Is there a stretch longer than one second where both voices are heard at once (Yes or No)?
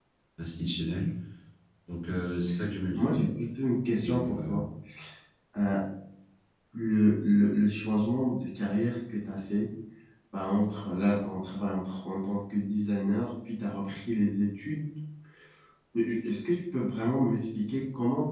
No